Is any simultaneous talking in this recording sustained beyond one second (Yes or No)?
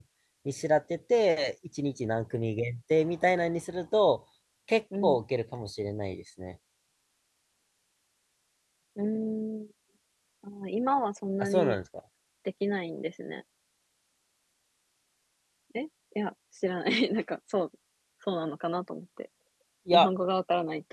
No